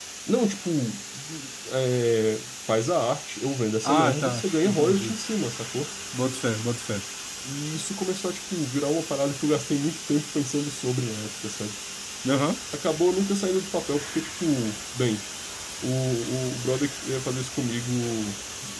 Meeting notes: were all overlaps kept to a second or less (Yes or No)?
No